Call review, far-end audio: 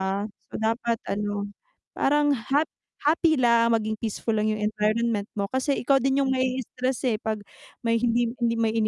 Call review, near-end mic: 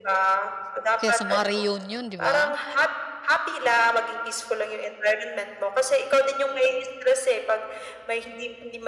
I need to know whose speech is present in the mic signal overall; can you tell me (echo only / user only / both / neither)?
both